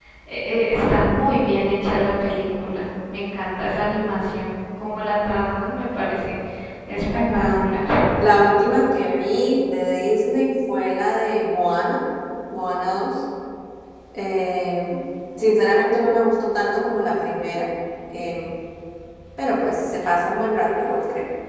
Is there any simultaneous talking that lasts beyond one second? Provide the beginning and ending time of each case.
none

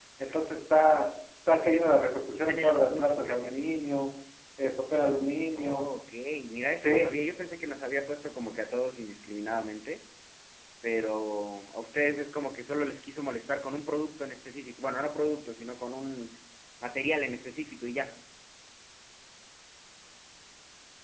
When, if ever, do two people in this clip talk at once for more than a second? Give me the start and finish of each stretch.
2.3-3.6

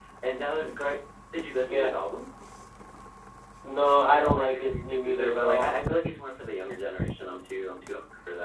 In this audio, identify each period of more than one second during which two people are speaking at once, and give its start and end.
4.1-5.7

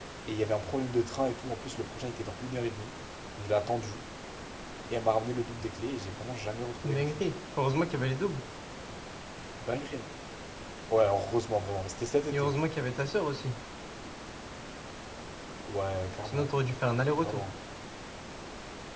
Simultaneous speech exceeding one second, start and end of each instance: none

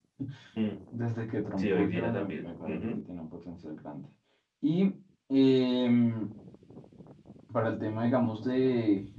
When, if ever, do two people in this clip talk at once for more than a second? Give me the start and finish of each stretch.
1.6-3.0

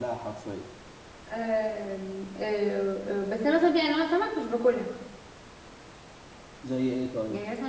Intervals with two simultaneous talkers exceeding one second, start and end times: none

